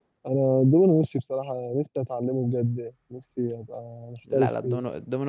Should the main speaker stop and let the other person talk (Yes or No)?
Yes